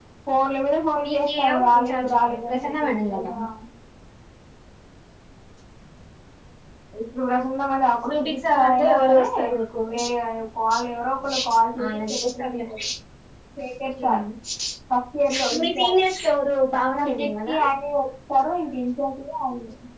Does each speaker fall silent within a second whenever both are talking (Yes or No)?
No